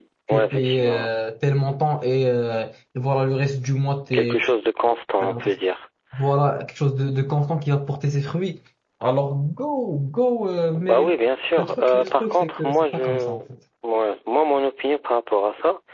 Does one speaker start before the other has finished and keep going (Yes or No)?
Yes